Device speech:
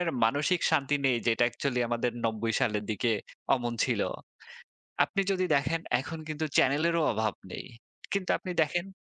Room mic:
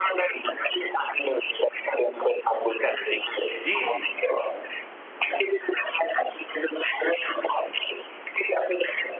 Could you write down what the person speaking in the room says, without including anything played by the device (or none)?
জ্বি, জ্বি।